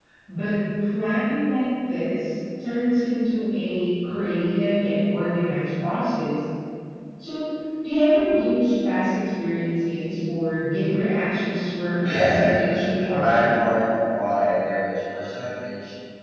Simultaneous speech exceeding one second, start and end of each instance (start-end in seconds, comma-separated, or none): 12.0-13.5